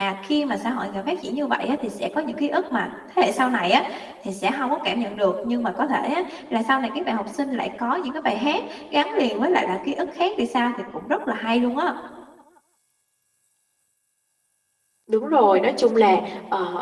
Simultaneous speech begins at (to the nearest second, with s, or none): none